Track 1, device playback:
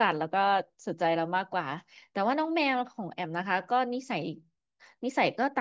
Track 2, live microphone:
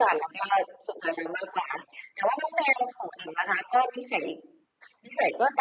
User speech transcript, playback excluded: none

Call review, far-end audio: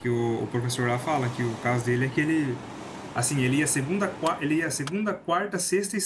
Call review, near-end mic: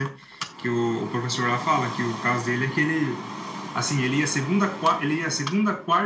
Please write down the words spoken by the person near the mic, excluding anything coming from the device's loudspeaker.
none

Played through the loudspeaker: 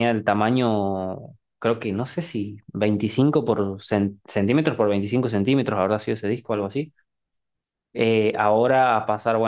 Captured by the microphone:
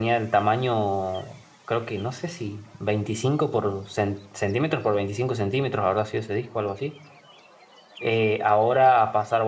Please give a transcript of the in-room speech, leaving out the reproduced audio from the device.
none

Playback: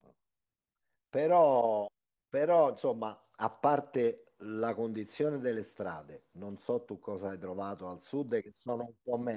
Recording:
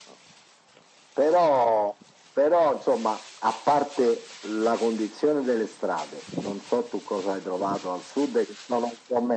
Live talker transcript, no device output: none

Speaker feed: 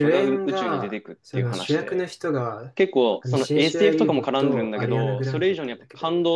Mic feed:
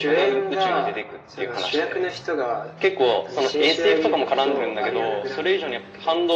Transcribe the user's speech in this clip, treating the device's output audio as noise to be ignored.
none

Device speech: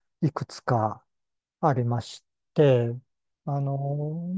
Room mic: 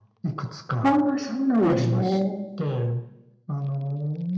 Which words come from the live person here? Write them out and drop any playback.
ああ、そうなんですね。

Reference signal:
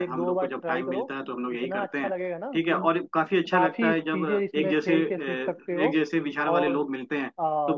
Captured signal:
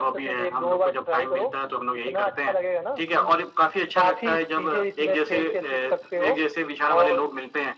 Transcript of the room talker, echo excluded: none

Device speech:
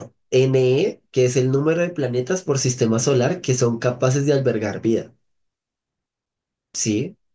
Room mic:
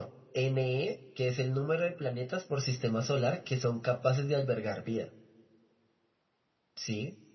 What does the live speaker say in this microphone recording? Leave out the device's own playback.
none

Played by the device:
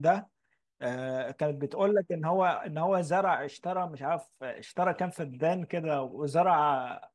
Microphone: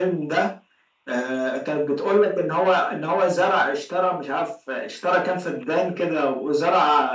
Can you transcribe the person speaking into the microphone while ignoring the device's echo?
none

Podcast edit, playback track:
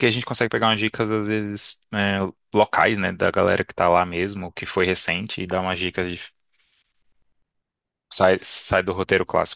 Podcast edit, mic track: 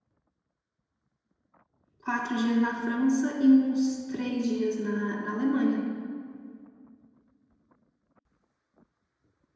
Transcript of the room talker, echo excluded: quatro dias na França e uns três dias na, na Alemanha.

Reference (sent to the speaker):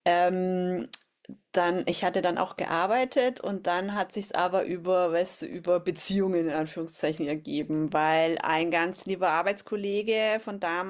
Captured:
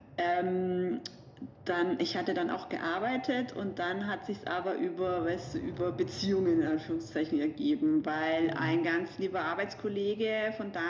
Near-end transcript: Mhm.

